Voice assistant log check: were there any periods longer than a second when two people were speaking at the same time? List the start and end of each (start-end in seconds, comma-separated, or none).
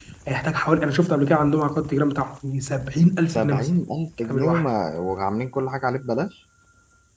none